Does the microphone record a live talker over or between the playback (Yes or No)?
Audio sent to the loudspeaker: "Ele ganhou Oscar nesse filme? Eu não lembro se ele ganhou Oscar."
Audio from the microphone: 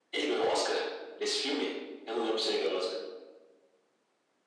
No